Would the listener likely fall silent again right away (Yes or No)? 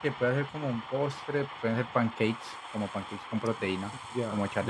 No